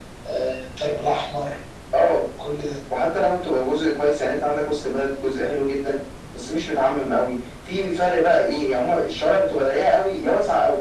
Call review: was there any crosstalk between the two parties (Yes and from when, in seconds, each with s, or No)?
No